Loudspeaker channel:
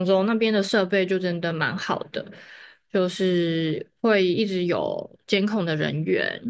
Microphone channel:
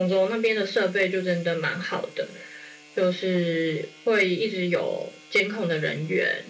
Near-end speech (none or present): none